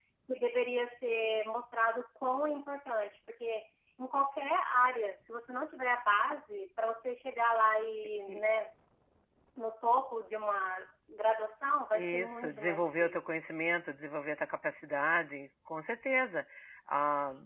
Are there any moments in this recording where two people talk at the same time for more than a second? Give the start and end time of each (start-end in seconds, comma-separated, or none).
11.9-13.2